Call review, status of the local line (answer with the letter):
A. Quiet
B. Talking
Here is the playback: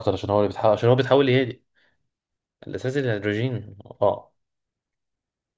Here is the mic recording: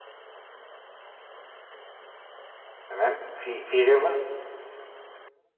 B